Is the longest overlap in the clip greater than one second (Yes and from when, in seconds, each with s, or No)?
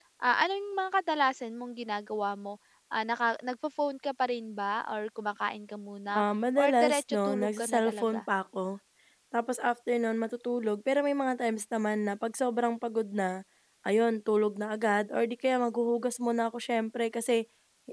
Yes, from 6.6 s